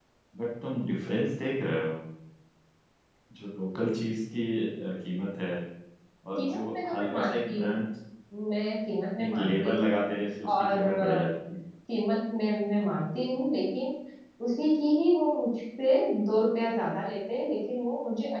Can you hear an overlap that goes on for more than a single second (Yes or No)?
Yes